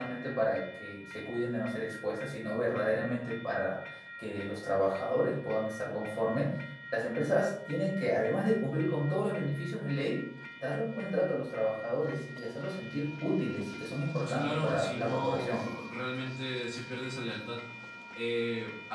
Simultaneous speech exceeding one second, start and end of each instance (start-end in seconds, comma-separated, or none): 14.2-15.7